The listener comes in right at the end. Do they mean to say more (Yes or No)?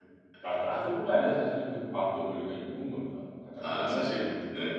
Yes